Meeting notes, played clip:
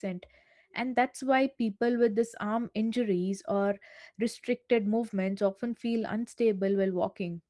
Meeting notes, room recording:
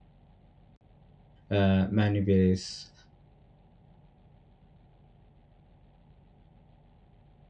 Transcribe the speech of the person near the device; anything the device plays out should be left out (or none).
uh, maneuvers